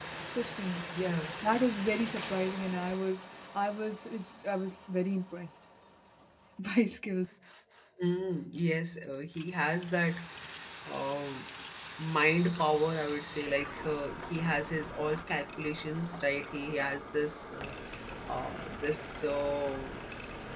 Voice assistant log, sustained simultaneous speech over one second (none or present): none